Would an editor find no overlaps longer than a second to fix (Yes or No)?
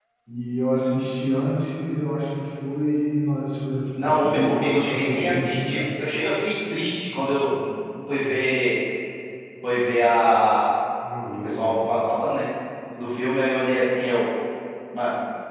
No